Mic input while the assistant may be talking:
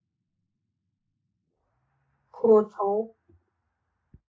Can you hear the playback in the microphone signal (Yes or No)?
No